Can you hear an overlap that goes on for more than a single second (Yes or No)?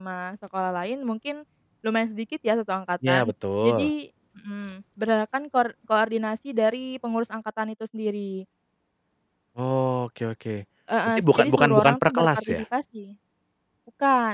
Yes